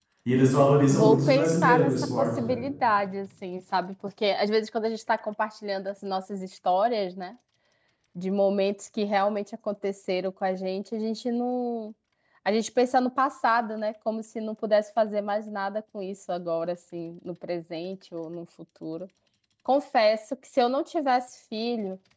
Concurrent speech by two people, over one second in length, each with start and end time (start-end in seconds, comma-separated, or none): 0.9-2.6